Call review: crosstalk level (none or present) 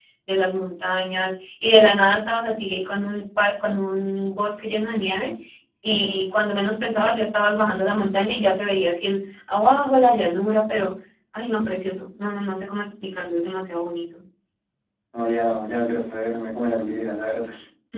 none